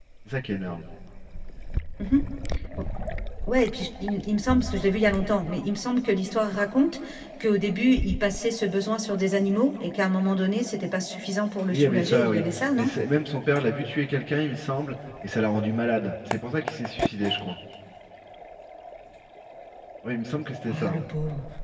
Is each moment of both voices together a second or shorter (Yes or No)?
No